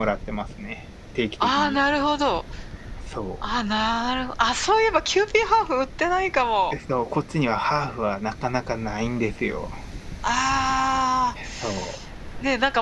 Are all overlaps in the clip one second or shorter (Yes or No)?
Yes